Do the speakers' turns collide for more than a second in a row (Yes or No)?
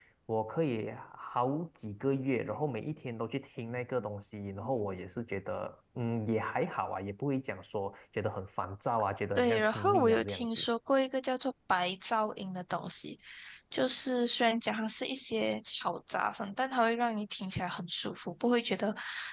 Yes